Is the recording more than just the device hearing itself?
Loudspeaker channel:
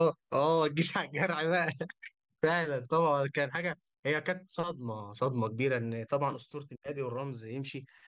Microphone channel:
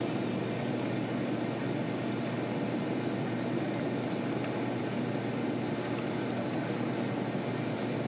No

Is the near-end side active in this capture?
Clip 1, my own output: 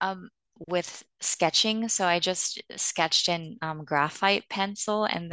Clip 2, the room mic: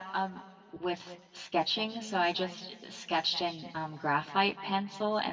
No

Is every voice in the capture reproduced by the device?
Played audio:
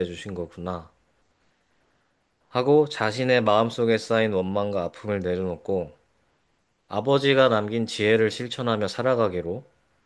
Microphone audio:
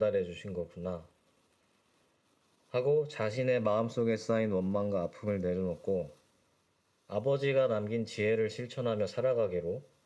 Yes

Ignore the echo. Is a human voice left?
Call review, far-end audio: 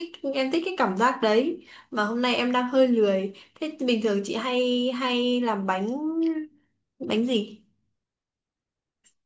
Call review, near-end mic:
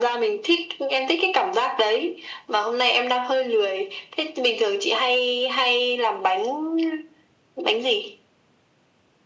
No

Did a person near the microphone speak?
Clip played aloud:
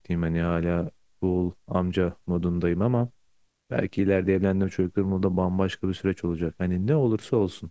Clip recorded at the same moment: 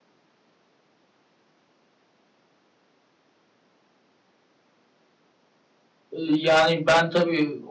Yes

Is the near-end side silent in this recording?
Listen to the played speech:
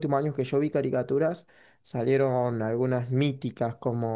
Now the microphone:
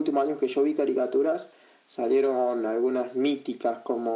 Yes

